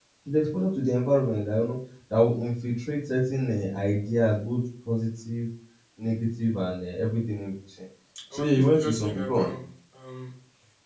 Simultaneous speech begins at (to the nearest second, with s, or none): 8 s